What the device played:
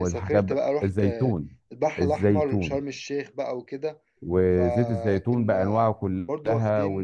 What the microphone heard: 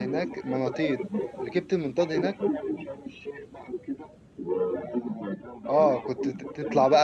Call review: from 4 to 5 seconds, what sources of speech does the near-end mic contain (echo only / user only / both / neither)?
echo only